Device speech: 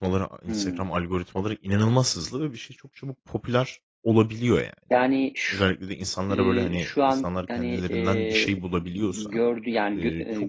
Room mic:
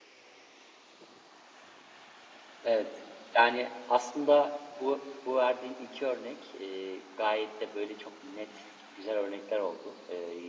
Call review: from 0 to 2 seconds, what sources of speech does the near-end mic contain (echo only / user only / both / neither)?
neither